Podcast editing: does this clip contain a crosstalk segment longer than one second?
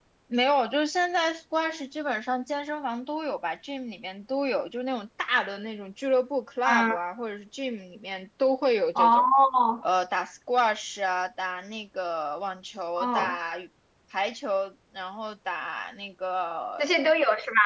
No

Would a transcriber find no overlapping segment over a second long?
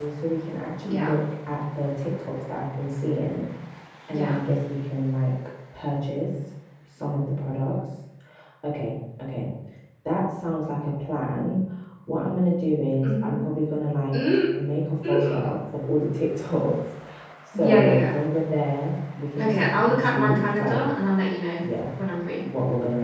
No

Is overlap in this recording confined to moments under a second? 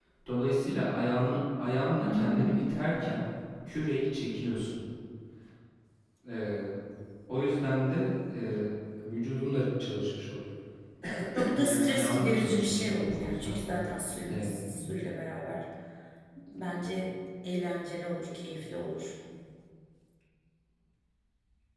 No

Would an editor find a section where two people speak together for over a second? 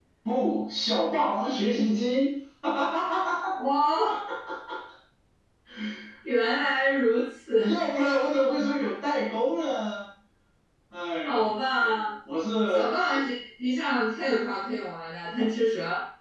No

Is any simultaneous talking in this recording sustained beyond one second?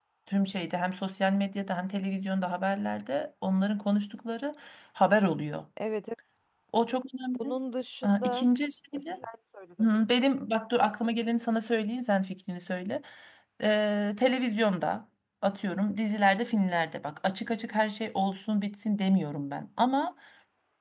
No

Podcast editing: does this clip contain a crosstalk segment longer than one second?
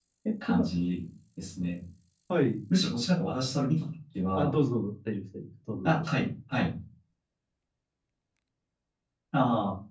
No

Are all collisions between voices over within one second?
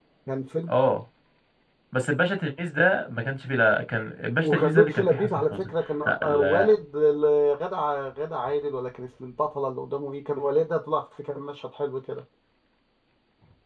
No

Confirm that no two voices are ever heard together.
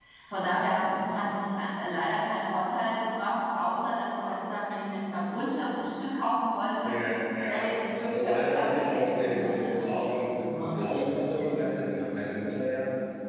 No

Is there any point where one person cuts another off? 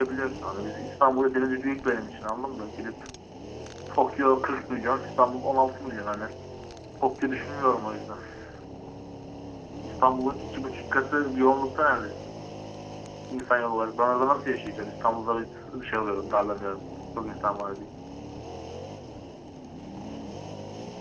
No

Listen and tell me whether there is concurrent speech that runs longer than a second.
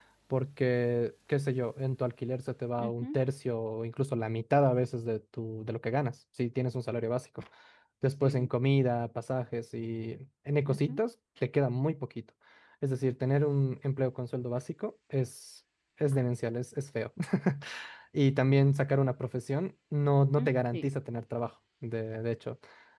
No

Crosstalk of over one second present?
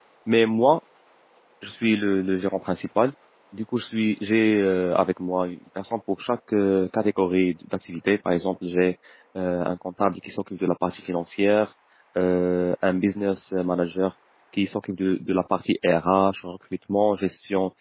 No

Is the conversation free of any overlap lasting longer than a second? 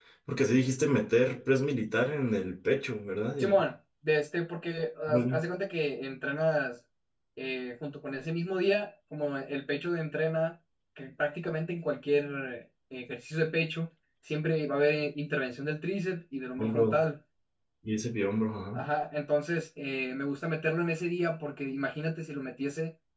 Yes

